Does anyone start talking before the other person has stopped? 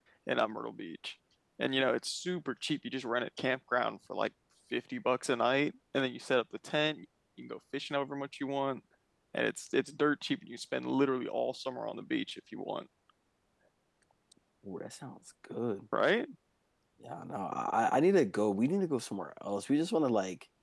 No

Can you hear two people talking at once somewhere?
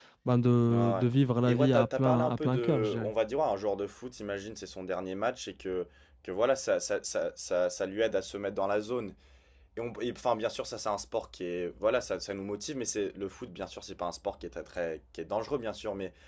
Yes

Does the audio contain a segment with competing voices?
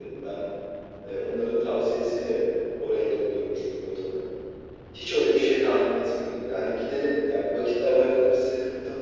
No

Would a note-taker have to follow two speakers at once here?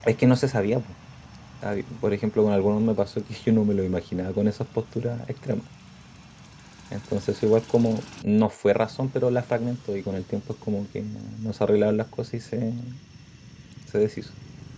No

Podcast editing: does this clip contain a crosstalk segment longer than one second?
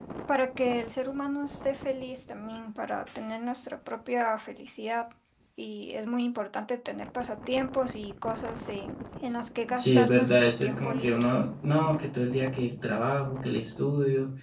Yes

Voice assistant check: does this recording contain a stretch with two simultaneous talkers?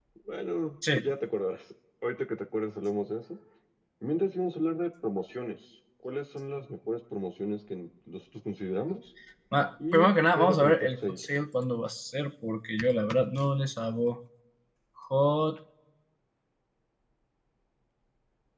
Yes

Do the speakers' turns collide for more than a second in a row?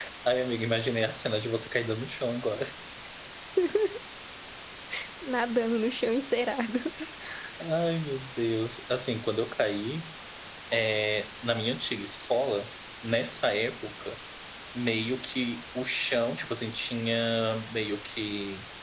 No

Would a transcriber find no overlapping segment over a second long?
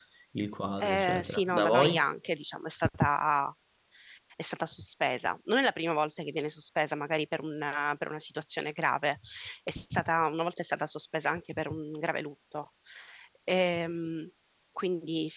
No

